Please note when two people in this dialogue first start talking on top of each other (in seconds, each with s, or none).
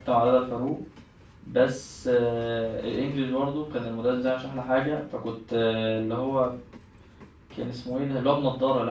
none